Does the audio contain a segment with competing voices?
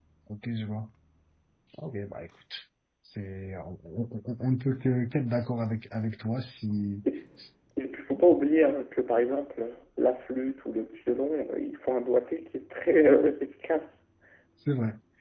No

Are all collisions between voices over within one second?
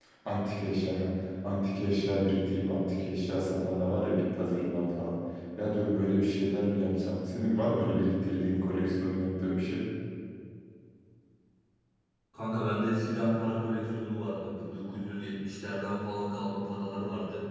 Yes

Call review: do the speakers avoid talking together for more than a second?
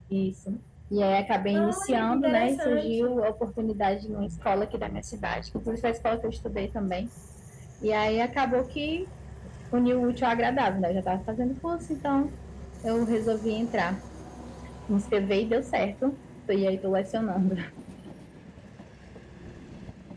No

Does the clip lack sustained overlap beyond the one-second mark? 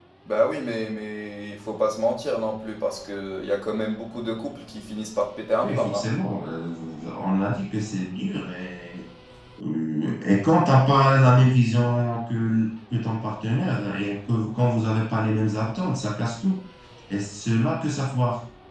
Yes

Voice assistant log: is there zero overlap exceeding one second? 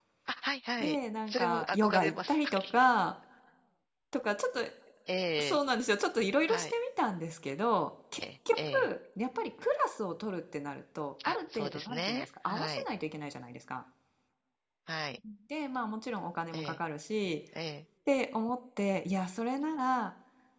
No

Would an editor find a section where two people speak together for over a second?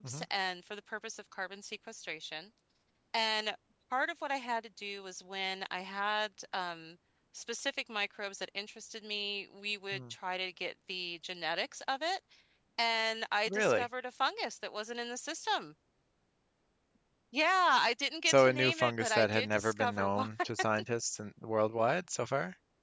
Yes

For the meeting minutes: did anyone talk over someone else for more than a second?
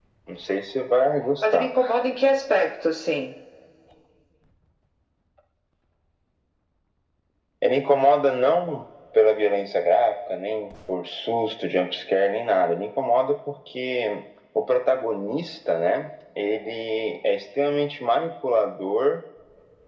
No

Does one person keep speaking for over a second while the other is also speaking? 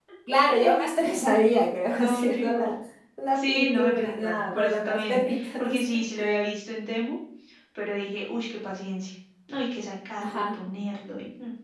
Yes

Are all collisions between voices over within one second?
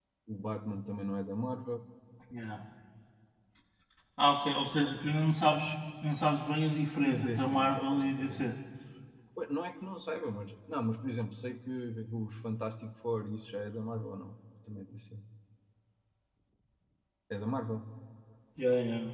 No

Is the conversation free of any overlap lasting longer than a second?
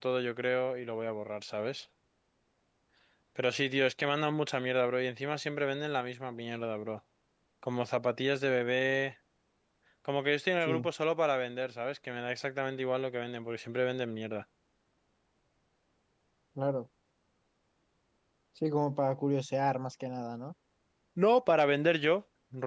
Yes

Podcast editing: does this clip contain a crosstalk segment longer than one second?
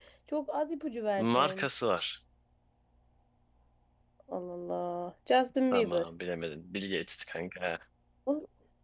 No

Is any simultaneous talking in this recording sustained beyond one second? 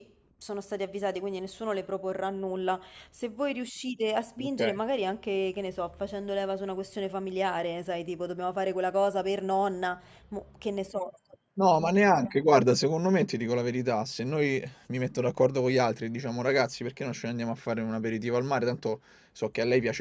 No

